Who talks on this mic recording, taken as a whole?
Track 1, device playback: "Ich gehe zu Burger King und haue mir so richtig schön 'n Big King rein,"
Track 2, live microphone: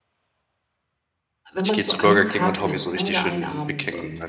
both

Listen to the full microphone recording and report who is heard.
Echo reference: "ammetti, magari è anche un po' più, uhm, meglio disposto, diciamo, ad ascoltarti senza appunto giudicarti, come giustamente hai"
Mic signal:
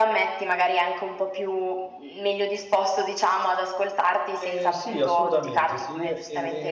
both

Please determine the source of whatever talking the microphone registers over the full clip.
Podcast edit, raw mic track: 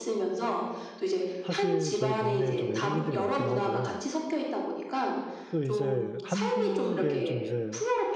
both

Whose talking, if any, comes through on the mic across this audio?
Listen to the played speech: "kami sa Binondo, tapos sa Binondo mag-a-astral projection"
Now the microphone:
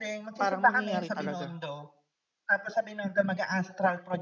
both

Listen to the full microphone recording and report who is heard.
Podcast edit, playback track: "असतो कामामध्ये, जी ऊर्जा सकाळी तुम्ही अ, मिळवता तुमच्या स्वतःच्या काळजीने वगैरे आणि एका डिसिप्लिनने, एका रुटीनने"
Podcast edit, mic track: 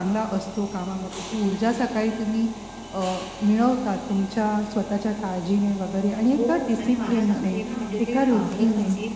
both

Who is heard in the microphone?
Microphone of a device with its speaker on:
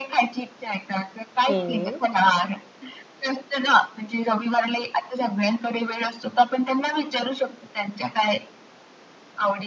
both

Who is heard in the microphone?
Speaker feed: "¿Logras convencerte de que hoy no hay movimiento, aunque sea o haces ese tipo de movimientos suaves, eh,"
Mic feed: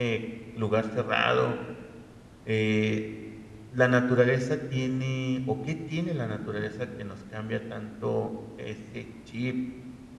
user only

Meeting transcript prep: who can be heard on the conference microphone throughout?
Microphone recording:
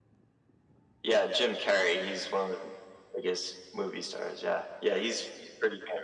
echo only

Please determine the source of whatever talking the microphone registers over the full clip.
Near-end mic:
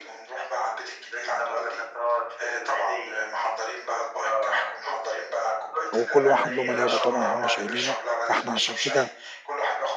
both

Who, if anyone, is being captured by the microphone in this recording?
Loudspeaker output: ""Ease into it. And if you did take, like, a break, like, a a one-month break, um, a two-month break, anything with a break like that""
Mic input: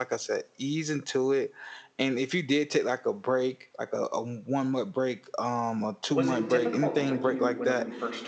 both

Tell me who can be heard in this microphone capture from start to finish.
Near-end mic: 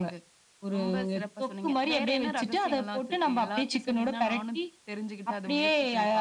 echo only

